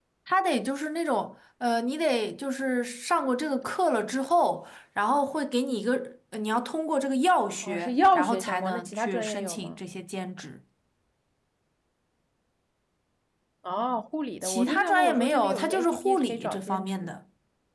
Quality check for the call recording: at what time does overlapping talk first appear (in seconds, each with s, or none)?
7.6 s